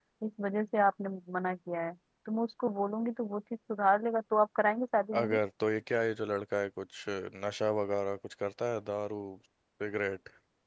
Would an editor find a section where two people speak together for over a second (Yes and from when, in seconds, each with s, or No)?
No